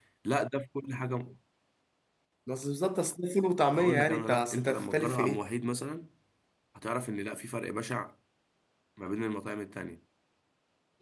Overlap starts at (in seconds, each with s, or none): 3.7 s